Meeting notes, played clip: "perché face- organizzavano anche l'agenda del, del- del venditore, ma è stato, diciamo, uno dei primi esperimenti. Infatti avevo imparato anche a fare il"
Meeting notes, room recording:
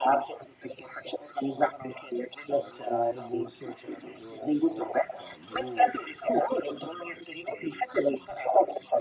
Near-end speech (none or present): present